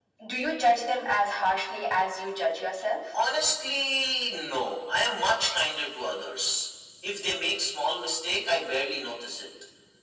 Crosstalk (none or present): none